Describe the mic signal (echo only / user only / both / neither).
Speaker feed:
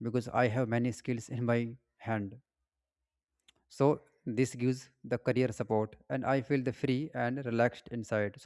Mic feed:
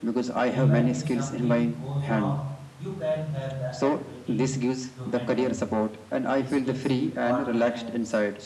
both